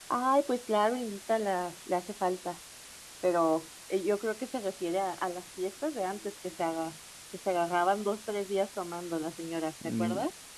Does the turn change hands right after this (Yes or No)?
Yes